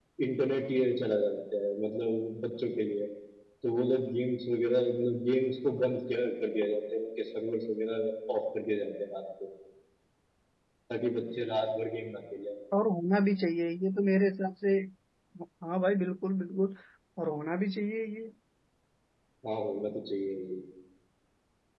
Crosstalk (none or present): none